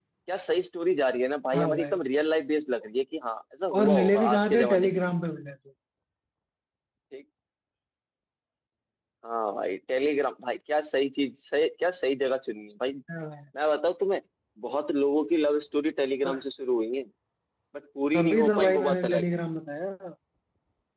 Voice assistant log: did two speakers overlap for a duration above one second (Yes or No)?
Yes